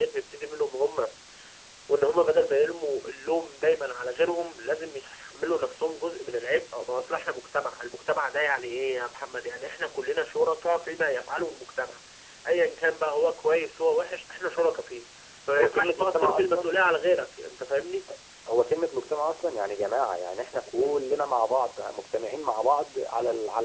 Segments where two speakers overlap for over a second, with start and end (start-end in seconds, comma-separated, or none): 15.5-16.7